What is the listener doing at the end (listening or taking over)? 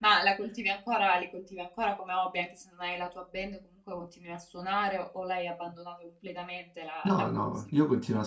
taking over